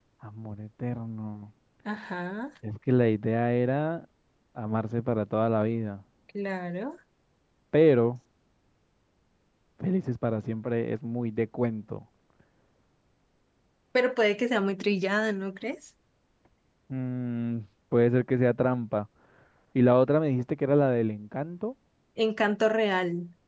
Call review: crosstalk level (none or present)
none